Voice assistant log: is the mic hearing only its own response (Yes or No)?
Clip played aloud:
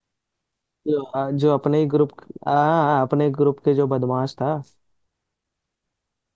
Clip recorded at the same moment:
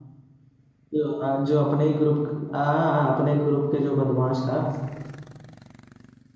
Yes